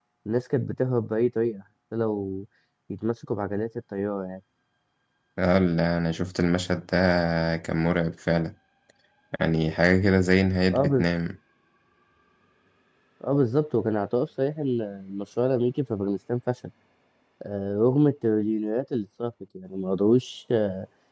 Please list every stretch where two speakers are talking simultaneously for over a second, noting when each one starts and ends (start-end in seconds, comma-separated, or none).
none